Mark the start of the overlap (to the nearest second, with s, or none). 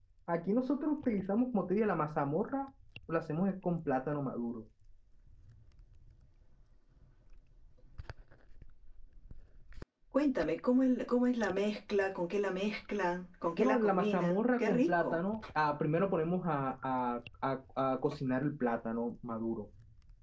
14 s